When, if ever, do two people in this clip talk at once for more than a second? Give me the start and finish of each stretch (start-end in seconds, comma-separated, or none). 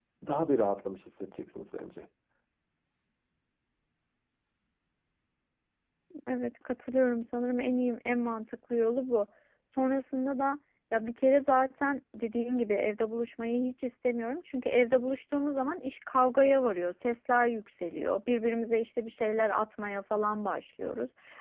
none